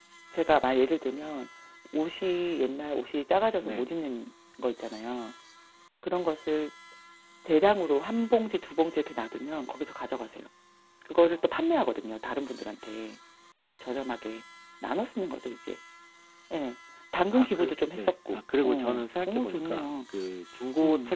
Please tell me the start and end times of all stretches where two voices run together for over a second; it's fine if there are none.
17.3-19.9

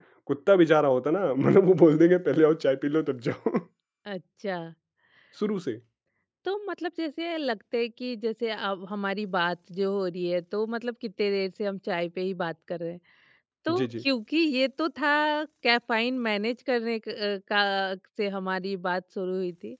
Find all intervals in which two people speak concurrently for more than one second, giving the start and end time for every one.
none

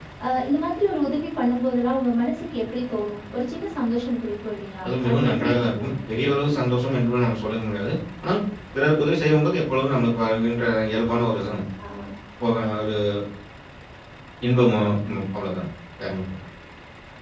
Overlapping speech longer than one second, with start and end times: 4.8-6.2

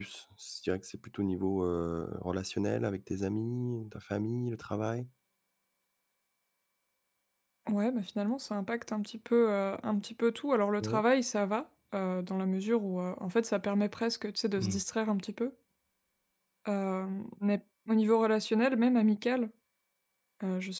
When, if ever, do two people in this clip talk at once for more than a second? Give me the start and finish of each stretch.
none

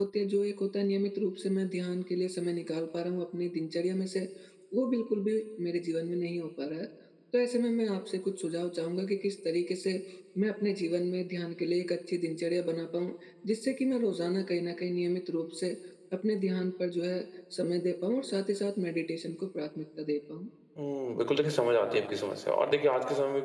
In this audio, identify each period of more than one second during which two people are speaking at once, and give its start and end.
none

